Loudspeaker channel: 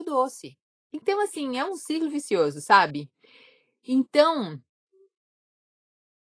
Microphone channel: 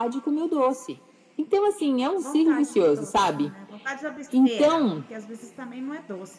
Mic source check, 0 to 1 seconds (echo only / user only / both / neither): echo only